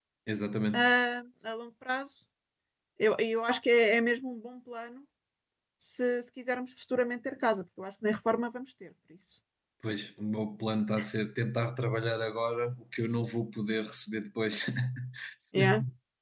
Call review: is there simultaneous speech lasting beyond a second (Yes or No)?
No